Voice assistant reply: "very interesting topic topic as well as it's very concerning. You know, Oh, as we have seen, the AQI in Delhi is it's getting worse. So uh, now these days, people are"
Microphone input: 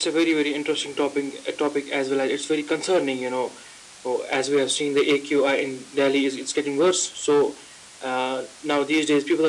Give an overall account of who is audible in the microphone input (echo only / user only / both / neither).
echo only